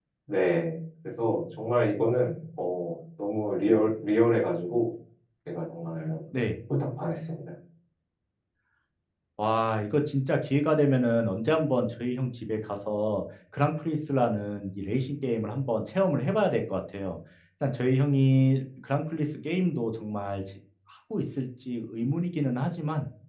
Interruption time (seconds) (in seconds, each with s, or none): none